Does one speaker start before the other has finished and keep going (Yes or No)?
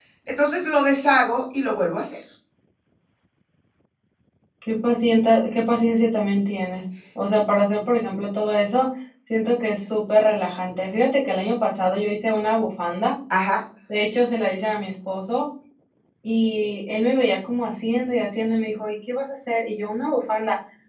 No